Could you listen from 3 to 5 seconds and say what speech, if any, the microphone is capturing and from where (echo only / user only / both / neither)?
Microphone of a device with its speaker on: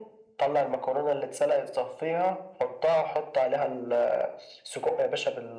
echo only